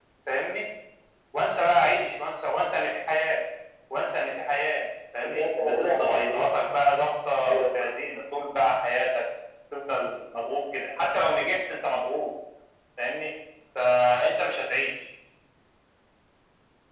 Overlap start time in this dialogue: 5.2 s

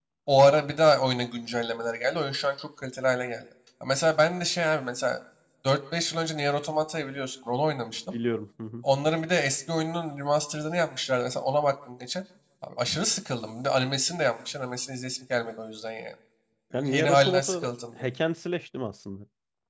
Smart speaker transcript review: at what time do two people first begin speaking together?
16.7 s

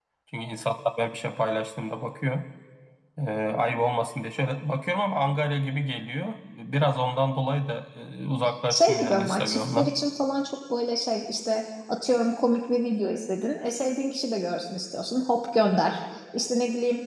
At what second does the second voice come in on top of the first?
8.7 s

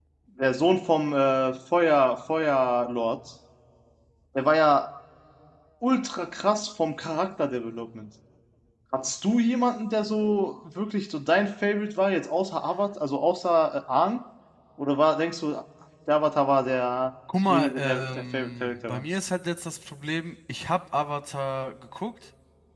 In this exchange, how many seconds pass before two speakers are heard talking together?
17.3 s

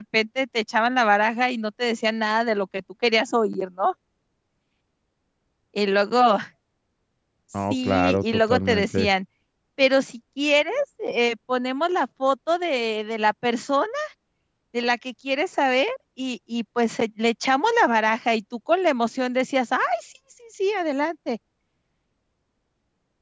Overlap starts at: 7.7 s

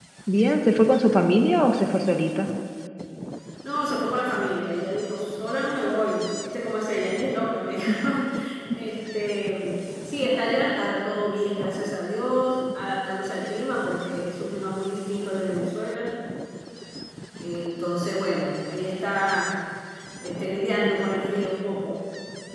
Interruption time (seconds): none

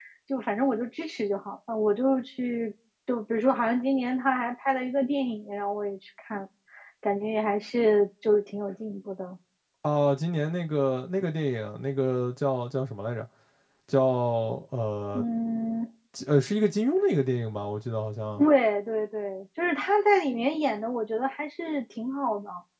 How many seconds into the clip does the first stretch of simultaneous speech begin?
none

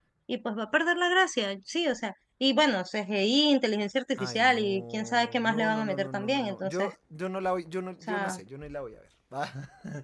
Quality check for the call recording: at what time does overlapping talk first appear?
4.2 s

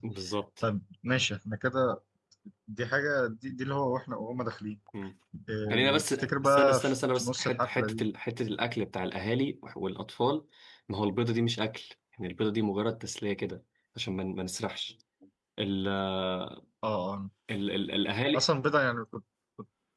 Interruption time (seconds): 5.7 s

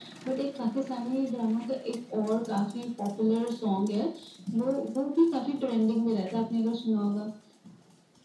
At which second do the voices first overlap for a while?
none

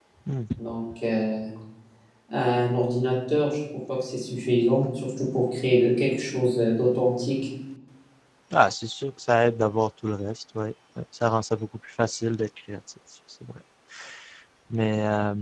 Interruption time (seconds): none

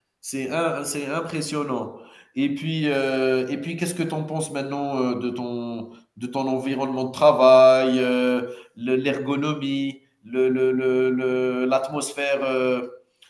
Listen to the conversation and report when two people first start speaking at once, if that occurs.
none

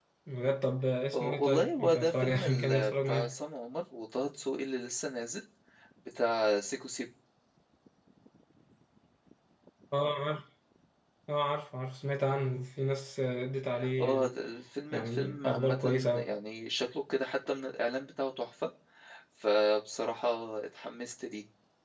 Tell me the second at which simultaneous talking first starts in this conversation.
1.1 s

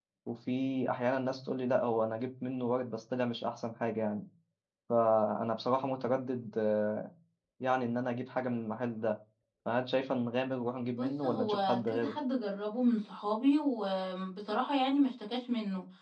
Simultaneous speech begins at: 10.9 s

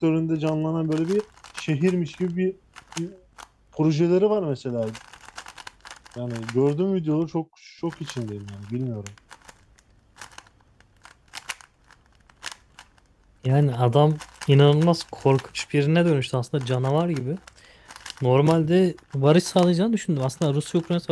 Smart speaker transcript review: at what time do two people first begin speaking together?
none

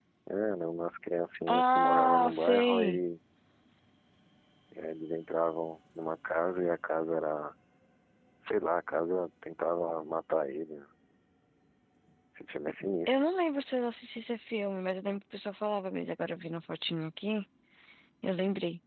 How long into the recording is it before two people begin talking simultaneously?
1.5 s

